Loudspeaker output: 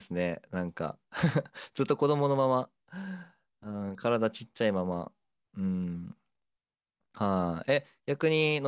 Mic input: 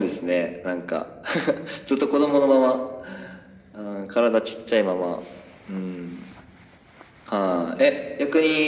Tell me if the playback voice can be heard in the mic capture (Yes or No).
Yes